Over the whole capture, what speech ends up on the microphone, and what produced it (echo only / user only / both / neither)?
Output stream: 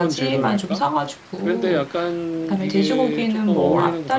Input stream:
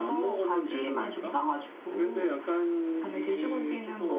echo only